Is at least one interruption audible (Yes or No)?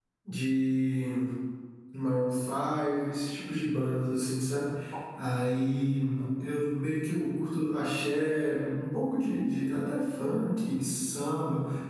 No